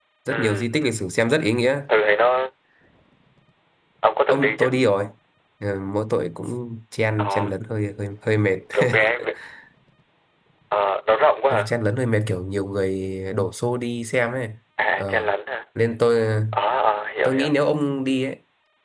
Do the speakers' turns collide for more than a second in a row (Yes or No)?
No